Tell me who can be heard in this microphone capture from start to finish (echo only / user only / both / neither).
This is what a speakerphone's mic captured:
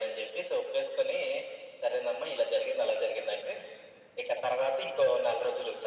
echo only